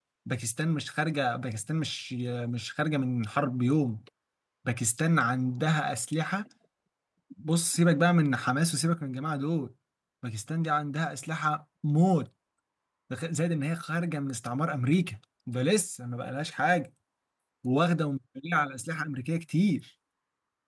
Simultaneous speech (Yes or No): No